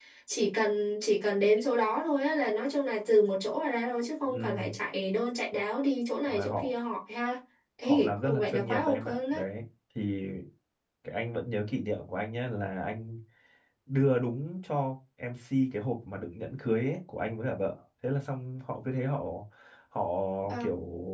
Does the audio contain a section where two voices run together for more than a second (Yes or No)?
Yes